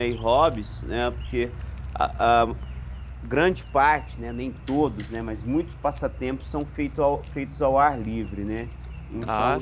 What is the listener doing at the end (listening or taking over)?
listening